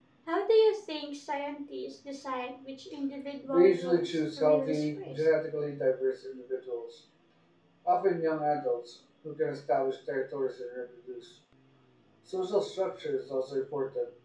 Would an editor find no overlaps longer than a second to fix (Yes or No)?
No